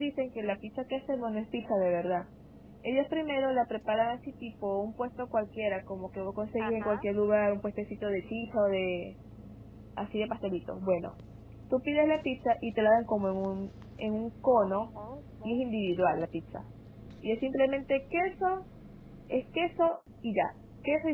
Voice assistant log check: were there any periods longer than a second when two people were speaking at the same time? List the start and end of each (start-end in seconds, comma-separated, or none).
none